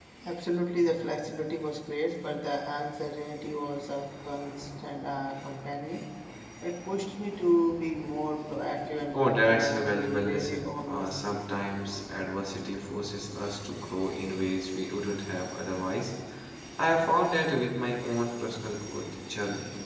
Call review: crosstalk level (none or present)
present